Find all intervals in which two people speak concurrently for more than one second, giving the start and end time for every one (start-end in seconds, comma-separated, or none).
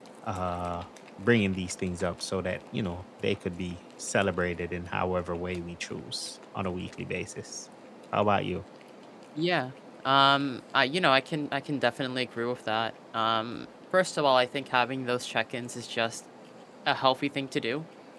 none